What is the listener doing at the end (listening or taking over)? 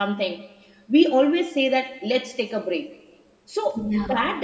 listening